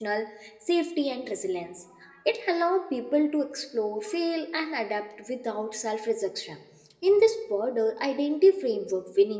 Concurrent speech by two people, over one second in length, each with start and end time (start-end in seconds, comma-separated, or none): none